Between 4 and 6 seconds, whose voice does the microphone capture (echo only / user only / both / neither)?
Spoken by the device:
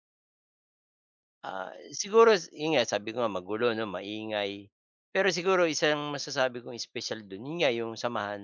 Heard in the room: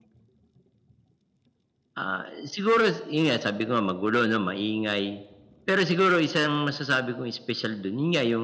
echo only